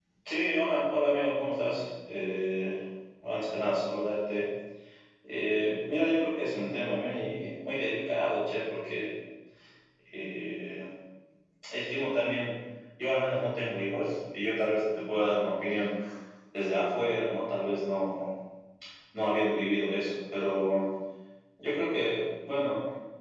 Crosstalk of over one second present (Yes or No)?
No